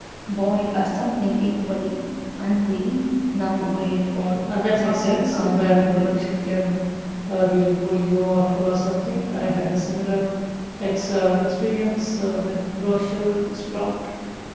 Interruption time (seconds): 5 s

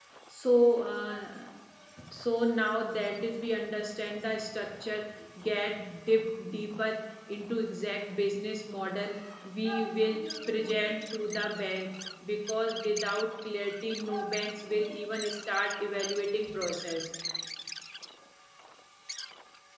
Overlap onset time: none

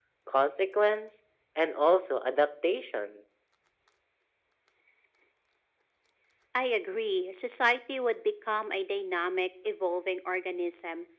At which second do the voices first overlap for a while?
none

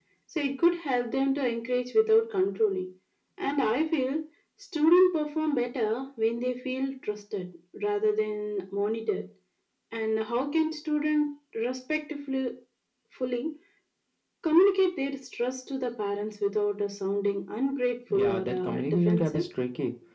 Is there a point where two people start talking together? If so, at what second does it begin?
18 s

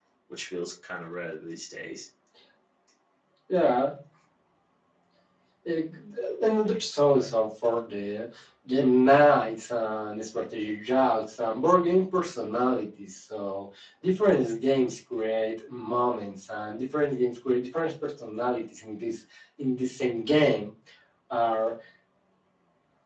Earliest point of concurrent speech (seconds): none

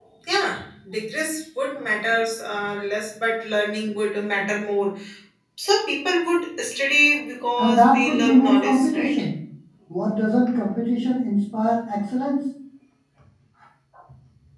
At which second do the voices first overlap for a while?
8 s

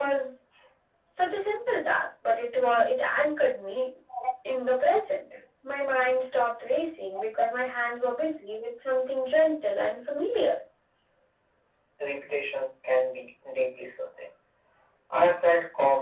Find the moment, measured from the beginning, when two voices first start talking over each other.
none

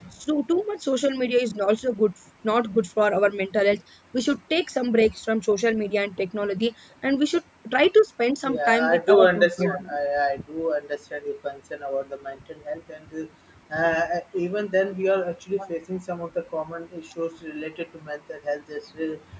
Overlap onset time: 8 s

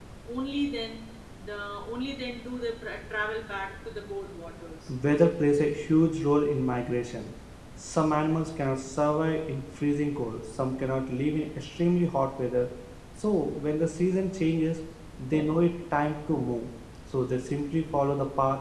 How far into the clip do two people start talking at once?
none

